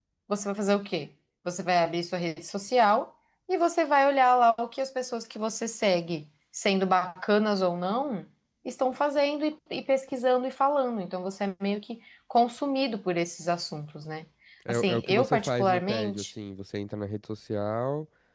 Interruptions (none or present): present